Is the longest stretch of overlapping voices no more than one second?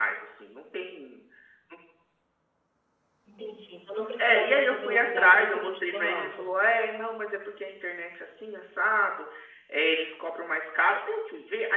No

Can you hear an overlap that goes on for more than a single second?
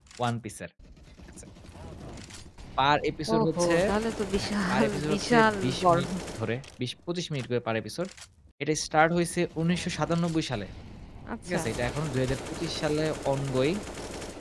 Yes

